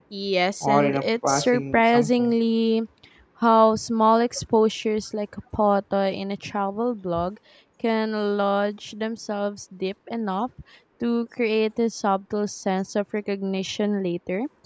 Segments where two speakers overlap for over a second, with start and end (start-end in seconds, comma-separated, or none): 0.6-2.3